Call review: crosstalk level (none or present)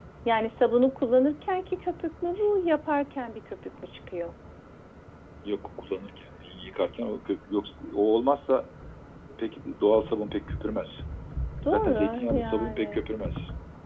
present